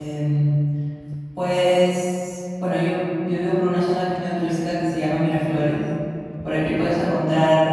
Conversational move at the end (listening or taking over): listening